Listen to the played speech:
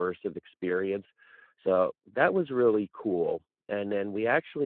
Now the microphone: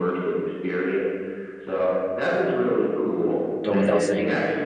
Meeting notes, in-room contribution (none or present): present